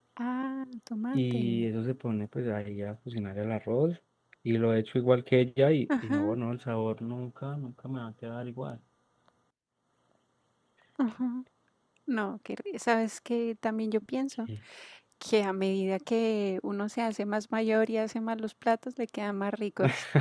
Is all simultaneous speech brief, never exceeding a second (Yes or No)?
Yes